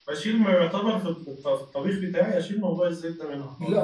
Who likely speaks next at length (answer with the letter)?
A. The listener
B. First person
A